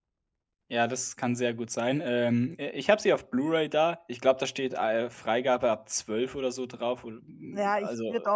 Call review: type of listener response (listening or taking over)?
taking over